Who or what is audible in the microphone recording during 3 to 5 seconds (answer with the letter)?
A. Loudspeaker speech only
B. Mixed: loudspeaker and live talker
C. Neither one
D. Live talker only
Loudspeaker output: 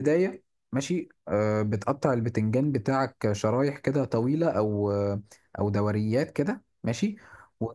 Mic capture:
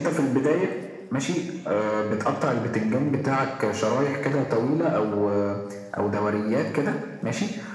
A